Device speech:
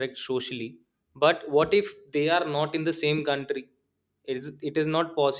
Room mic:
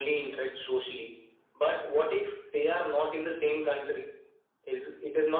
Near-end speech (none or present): none